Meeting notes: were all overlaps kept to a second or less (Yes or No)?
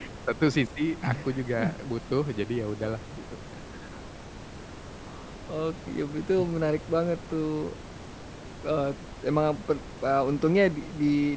Yes